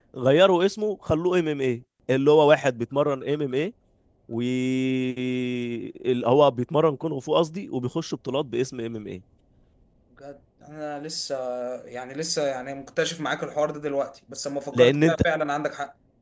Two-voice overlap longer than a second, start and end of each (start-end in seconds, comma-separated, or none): none